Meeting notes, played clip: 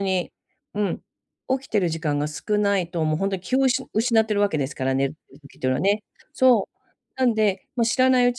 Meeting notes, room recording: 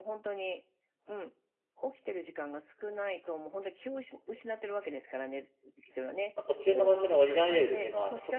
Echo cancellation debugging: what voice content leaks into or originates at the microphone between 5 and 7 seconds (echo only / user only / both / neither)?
both